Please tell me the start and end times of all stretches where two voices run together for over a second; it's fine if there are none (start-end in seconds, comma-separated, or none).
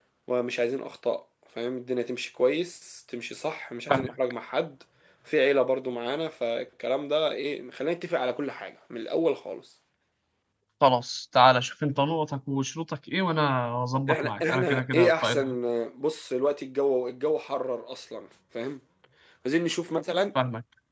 14.1-15.6